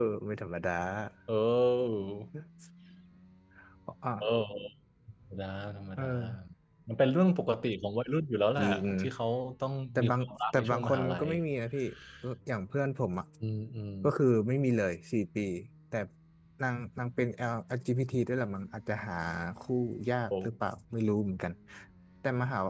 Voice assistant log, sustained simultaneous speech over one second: present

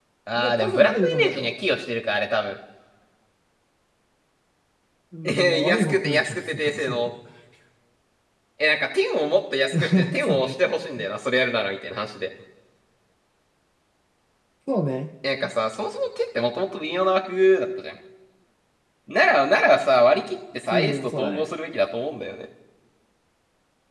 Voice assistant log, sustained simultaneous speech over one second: present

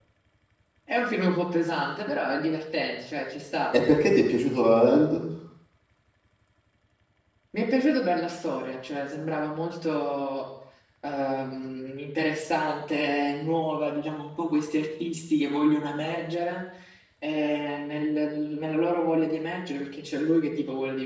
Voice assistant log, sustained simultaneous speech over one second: none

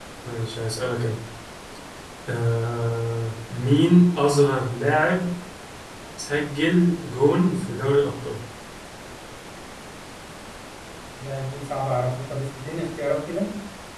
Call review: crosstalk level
none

